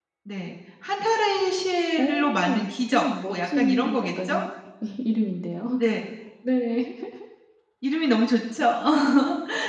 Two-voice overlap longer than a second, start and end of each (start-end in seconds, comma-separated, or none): 2.0-4.4